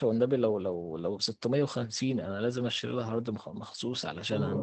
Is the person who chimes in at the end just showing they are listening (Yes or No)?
Yes